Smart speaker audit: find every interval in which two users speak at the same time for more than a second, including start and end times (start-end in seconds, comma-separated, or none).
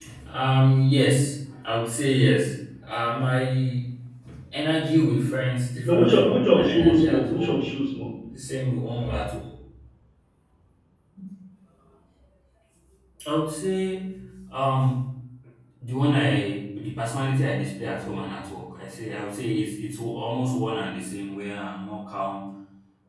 5.8-7.7